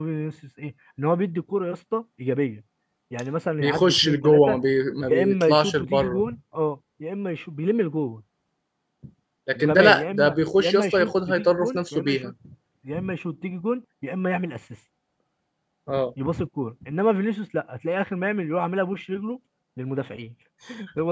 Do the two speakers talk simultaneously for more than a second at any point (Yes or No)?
Yes